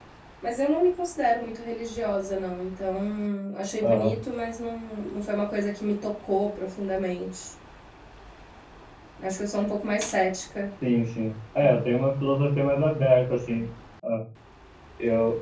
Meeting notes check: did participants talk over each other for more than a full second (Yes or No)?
No